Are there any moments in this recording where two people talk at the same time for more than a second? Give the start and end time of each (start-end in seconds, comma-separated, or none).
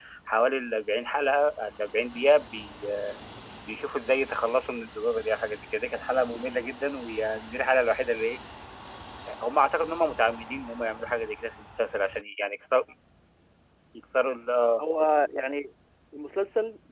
none